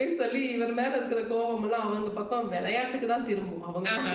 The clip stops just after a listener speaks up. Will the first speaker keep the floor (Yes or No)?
Yes